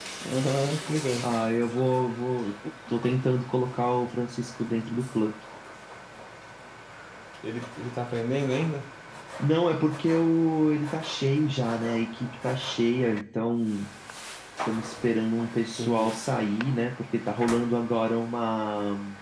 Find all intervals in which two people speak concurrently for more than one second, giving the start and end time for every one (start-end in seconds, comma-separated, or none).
none